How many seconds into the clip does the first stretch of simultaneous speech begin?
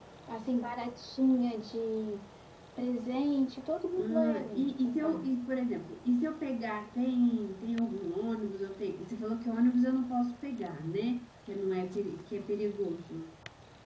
3.9 s

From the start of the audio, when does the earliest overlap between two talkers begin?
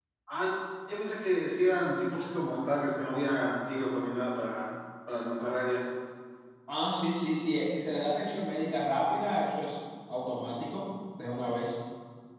none

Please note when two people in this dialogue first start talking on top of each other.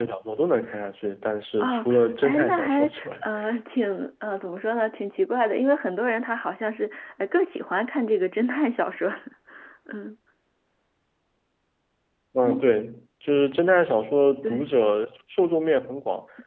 1.6 s

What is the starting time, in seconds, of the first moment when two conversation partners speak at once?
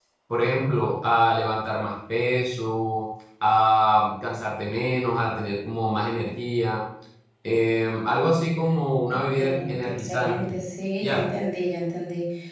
9.1 s

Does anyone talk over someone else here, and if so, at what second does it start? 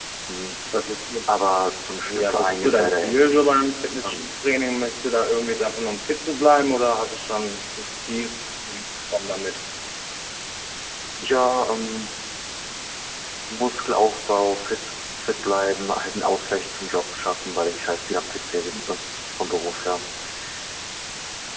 2.0 s

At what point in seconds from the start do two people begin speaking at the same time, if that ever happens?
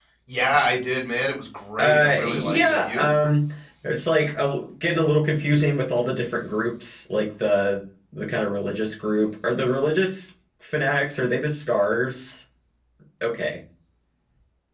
1.8 s

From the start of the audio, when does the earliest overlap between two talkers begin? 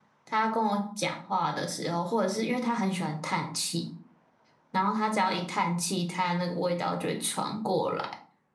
none

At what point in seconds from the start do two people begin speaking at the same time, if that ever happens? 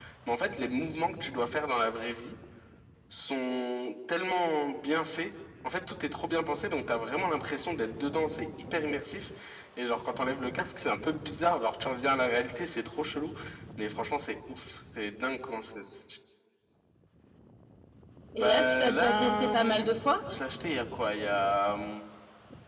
18.3 s

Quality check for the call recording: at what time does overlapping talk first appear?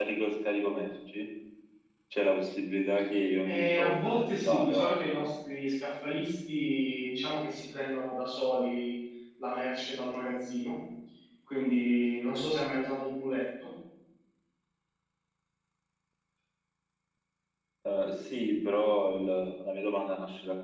3.5 s

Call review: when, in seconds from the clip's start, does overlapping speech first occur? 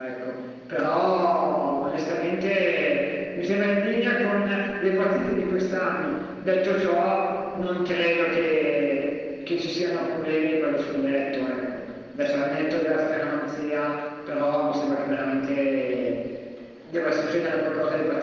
none

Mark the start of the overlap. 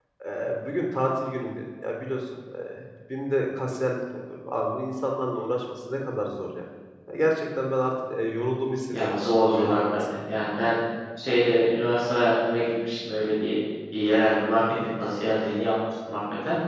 8.9 s

